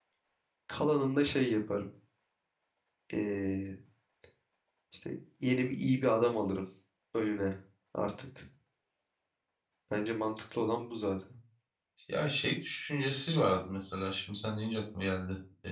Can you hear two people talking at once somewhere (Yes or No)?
No